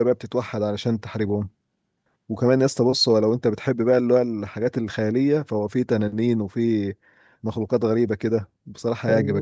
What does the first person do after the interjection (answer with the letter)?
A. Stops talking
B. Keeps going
A